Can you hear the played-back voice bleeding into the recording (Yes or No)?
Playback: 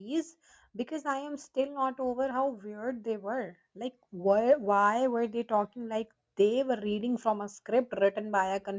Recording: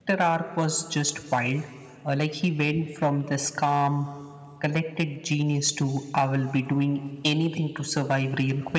No